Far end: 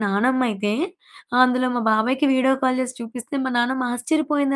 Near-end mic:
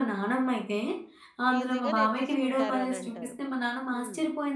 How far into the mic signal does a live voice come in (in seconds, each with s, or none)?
1.6 s